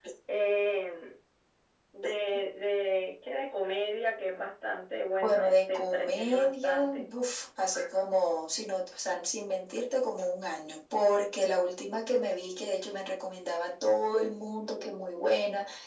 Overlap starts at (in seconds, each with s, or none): 5.2 s